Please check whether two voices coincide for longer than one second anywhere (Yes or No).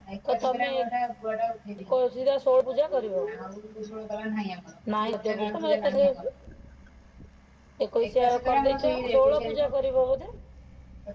Yes